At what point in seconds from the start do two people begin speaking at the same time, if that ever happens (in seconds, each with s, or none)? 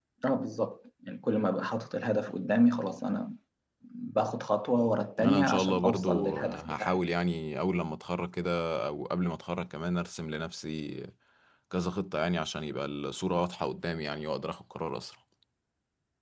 5.2 s